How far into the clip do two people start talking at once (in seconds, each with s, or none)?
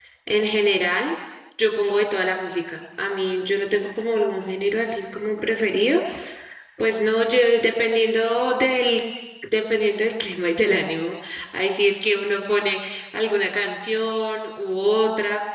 none